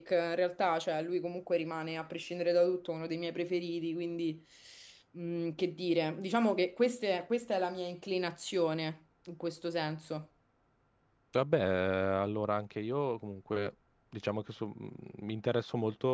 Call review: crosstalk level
none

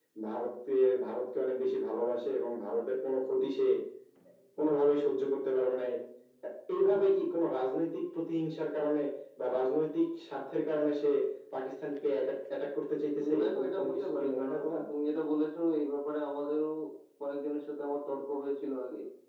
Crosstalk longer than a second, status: present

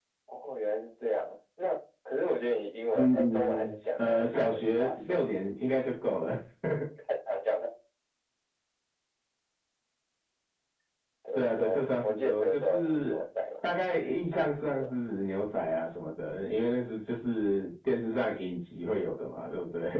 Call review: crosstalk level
present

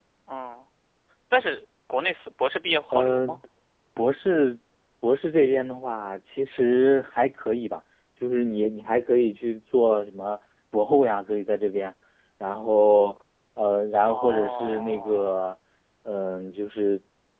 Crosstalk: present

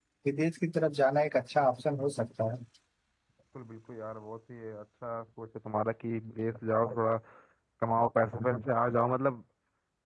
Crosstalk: none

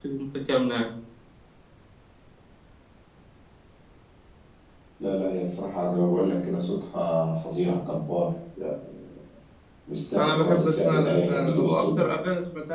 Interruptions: present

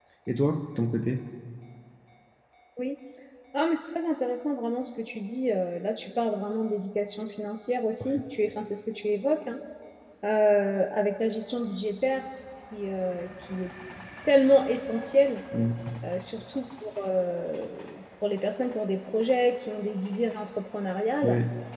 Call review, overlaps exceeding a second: none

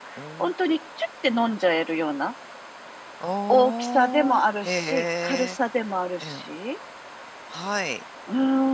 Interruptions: present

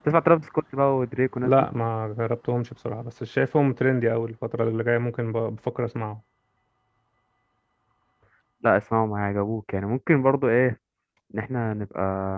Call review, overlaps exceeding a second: none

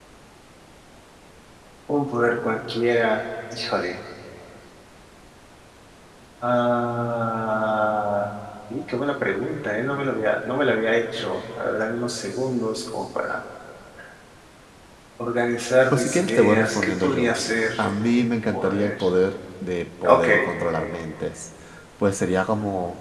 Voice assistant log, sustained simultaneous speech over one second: present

